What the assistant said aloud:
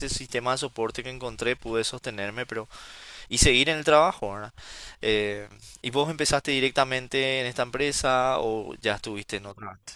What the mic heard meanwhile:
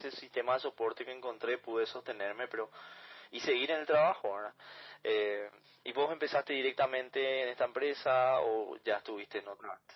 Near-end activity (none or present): none